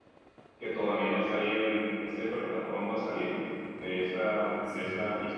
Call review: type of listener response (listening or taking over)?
listening